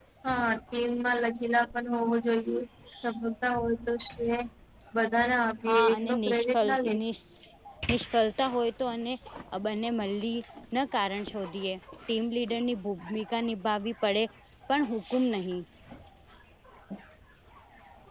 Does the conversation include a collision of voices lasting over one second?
Yes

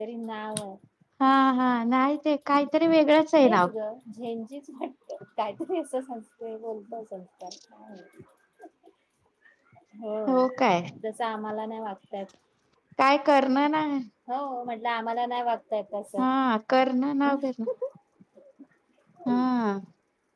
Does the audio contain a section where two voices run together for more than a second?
No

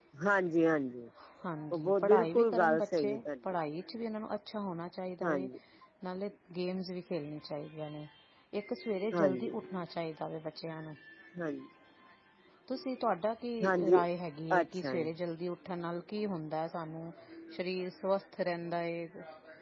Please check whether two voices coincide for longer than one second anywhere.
Yes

